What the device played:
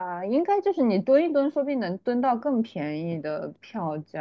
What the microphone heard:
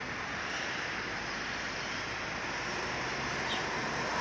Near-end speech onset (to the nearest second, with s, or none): none